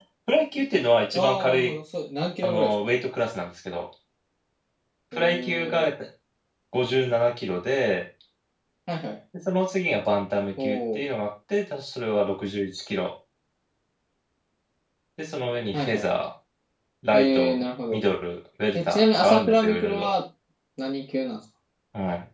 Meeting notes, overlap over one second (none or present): present